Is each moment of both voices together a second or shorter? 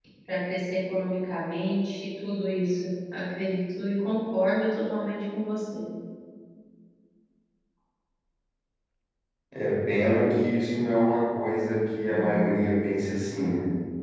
Yes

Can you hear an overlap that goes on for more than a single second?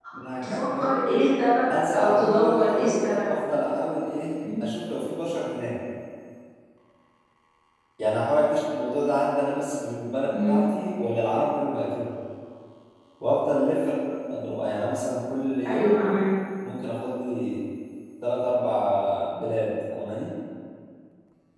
Yes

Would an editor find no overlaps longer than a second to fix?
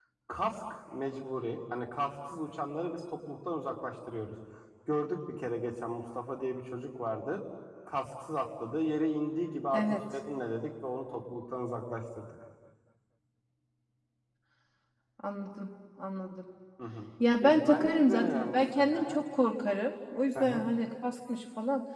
No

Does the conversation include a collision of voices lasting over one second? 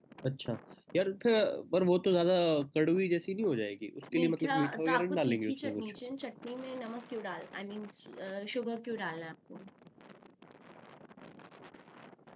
Yes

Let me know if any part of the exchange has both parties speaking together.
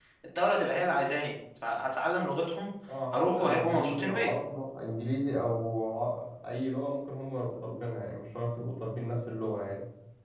Yes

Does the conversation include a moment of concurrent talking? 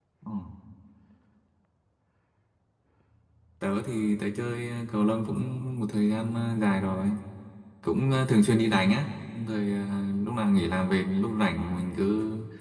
No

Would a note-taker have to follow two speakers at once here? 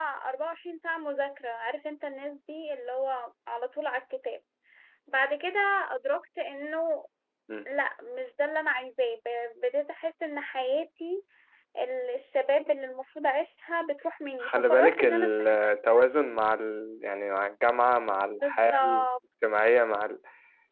Yes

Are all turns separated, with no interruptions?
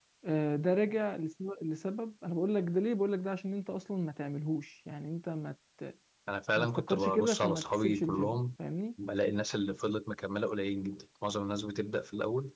No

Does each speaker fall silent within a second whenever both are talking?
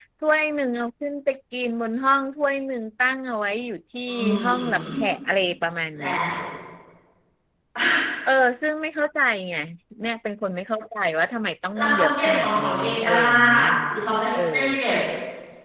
No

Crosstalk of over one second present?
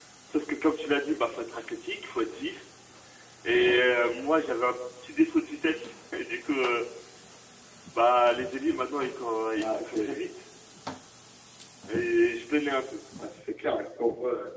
No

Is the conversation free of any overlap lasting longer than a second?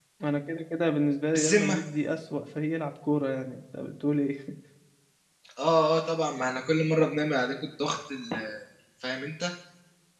Yes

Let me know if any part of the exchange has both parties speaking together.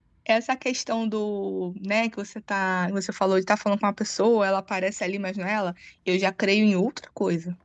No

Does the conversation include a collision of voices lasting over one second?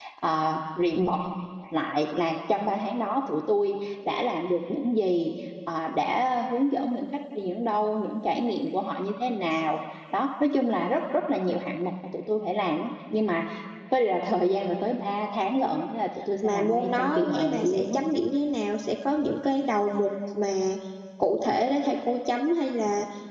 Yes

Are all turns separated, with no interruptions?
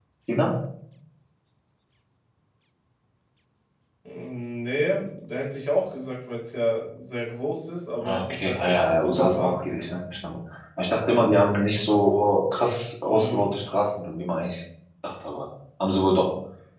No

